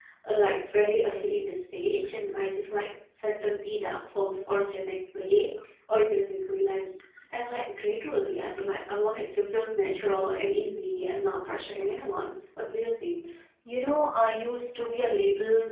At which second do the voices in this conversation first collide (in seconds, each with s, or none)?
none